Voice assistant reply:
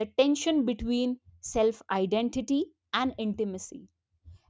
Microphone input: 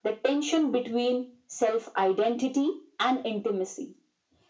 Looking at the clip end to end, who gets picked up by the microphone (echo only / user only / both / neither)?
echo only